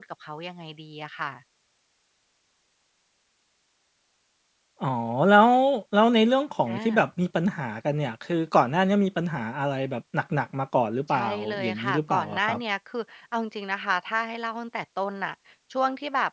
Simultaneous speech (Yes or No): Yes